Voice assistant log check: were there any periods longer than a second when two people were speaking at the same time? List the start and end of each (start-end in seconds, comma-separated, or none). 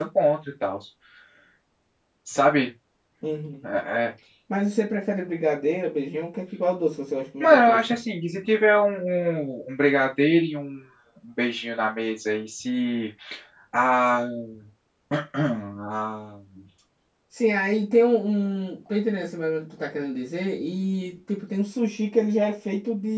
none